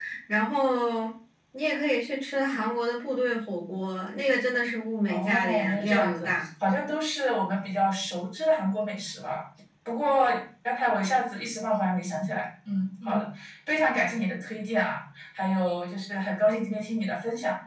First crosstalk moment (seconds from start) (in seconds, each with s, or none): 5.1 s